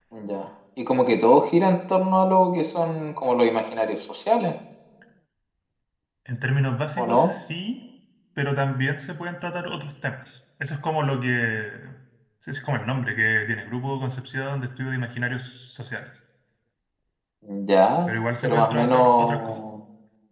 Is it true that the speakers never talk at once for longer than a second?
No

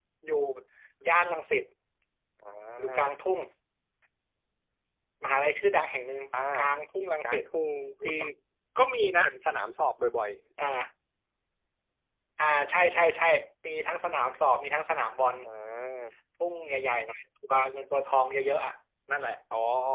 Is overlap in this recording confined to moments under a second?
Yes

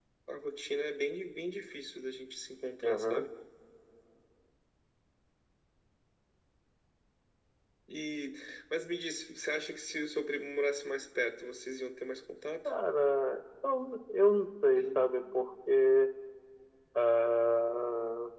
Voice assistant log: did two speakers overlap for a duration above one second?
No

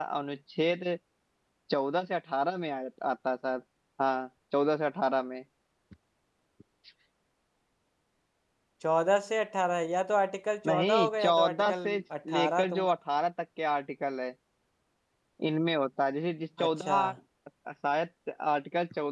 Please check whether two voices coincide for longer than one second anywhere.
Yes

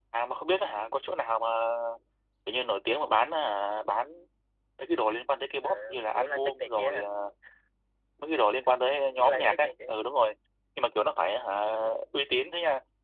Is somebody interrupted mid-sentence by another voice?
Yes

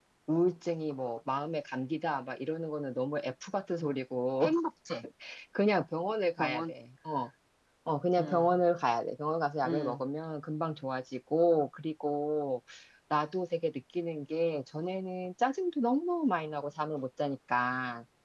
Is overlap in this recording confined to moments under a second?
Yes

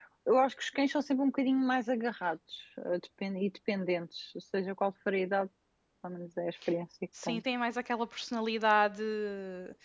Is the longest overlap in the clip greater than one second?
No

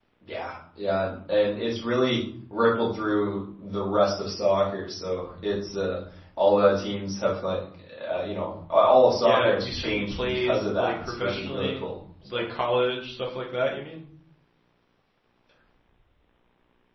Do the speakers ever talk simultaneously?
Yes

